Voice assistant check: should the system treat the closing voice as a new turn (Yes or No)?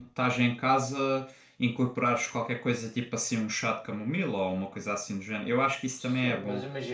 Yes